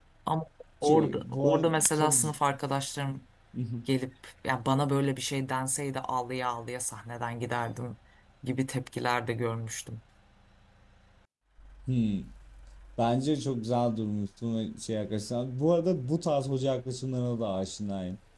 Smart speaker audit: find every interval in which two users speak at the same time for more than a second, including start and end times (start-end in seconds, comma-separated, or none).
0.8-2.2